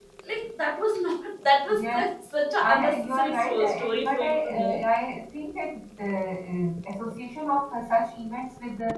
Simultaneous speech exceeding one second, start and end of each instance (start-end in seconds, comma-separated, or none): 2.6-4.8